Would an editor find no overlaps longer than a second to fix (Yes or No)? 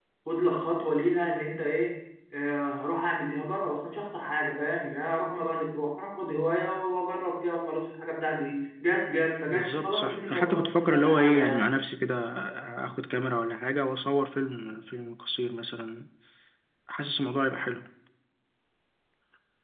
No